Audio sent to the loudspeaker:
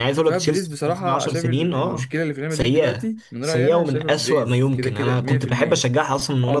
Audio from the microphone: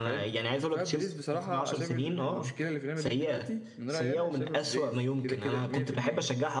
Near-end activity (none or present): none